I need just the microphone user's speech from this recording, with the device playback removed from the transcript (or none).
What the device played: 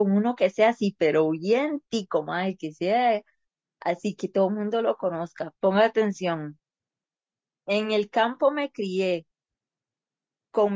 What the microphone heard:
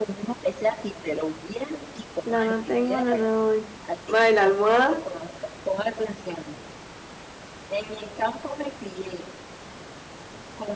Lana tengo, lana doy. Ma, ¿y la almohada?